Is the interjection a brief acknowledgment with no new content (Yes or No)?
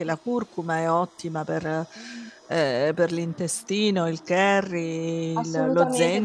No